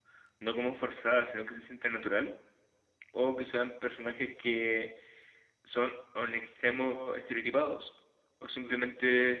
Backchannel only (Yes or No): Yes